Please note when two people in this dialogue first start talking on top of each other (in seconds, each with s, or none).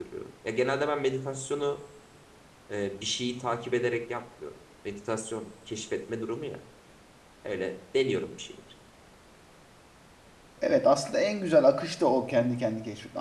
none